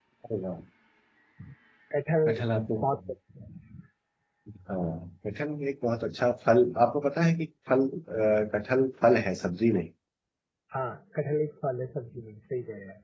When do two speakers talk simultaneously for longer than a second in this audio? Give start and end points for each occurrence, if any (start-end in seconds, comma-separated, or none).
none